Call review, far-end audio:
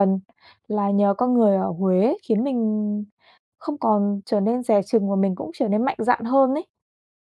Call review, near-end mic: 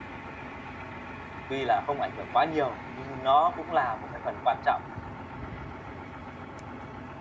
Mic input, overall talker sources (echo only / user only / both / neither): user only